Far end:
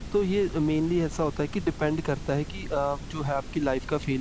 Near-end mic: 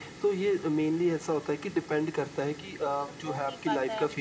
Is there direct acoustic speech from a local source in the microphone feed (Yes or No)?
Yes